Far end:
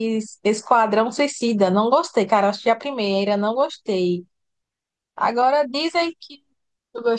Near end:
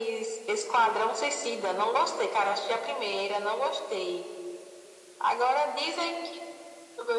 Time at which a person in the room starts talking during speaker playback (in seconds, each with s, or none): none